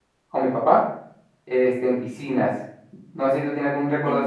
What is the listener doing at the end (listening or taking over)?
listening